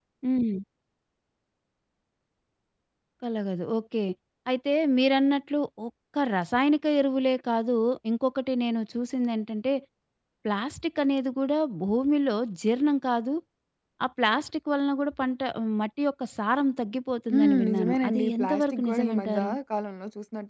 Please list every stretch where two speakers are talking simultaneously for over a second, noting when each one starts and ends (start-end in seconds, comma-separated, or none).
17.3-19.5